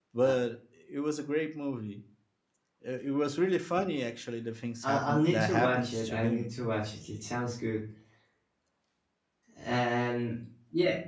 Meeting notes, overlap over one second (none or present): present